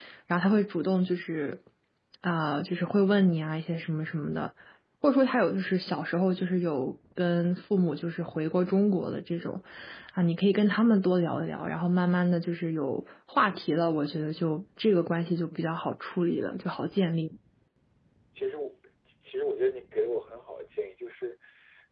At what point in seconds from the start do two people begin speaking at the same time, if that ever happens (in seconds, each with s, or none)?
none